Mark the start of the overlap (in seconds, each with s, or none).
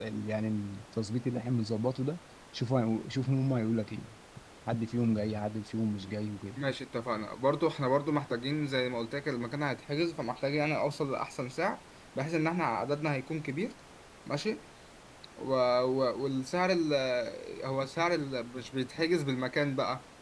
none